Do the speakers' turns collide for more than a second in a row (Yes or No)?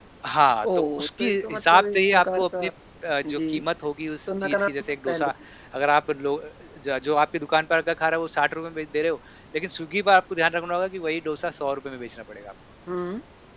Yes